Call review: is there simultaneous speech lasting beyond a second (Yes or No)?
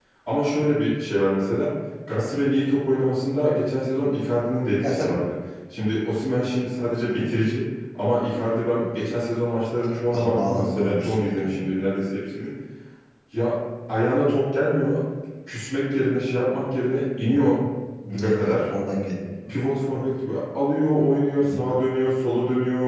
Yes